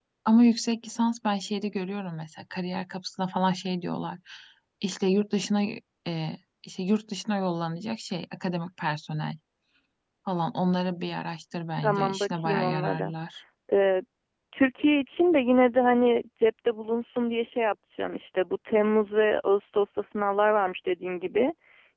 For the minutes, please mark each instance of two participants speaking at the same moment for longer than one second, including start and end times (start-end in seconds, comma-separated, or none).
11.8-13.1